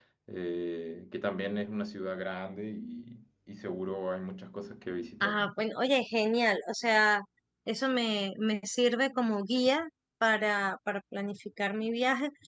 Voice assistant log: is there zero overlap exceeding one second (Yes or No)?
Yes